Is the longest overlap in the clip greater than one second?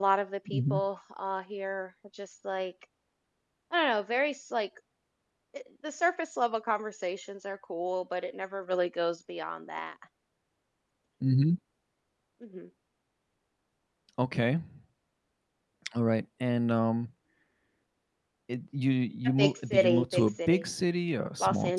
Yes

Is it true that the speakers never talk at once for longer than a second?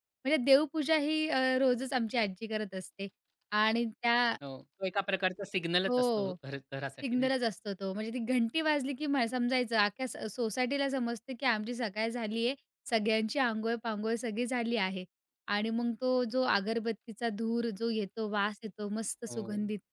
Yes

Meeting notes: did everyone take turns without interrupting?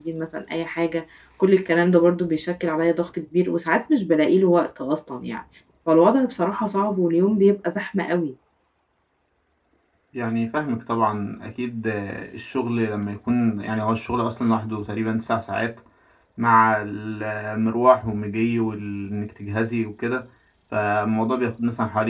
Yes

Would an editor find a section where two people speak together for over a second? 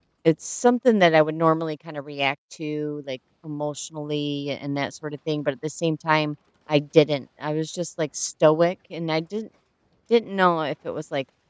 No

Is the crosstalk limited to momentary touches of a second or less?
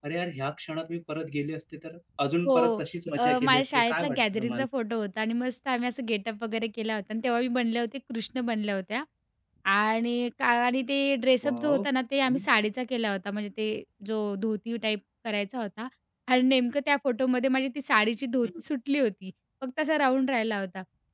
No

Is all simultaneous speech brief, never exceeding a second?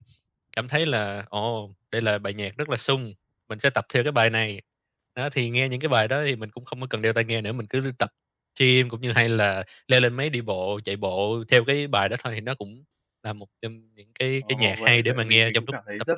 No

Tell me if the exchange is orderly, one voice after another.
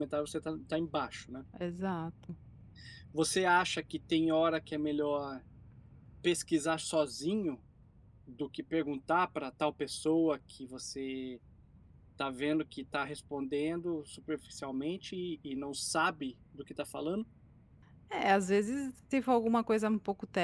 Yes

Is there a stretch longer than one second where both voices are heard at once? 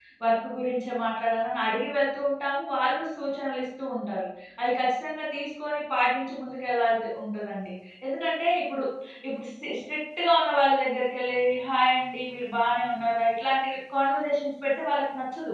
No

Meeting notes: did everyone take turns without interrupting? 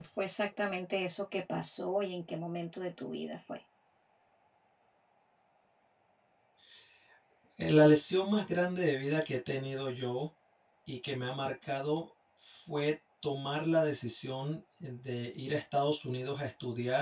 Yes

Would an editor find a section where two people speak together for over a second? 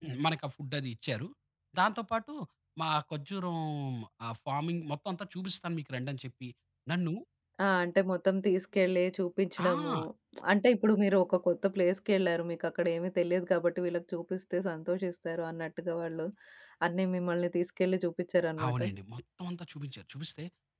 No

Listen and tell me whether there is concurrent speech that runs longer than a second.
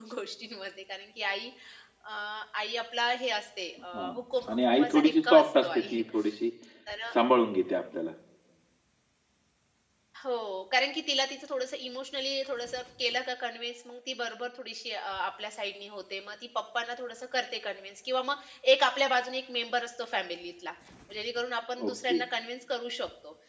Yes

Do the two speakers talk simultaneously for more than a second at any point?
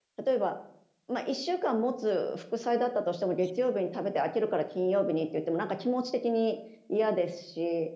No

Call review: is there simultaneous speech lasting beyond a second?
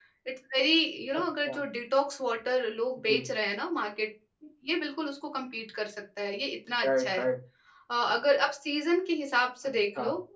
No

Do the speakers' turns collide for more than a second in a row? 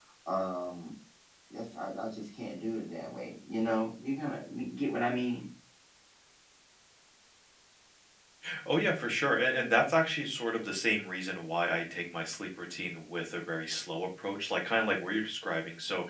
No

